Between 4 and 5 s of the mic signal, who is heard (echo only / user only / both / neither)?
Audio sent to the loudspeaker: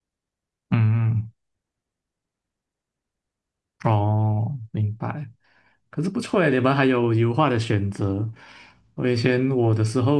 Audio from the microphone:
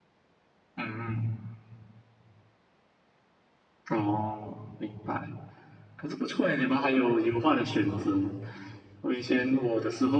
echo only